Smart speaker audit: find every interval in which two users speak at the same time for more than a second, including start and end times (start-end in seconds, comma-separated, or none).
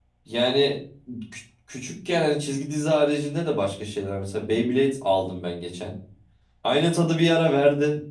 none